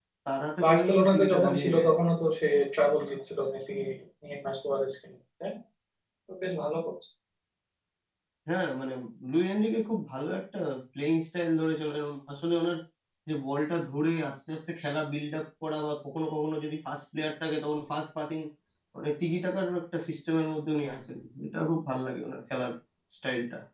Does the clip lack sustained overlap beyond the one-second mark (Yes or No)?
No